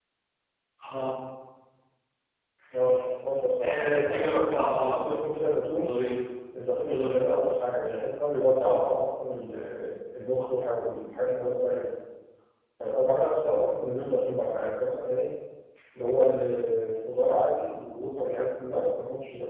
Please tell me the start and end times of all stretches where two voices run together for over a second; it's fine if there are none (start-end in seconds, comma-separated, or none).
3.6-5.2